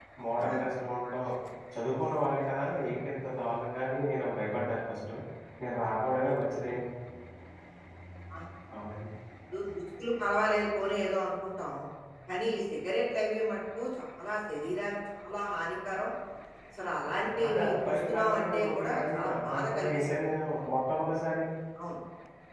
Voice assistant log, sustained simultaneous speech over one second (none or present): present